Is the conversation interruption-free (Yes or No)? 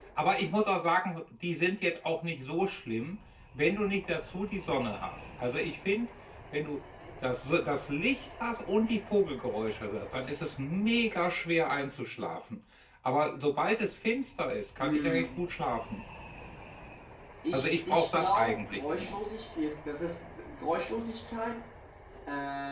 No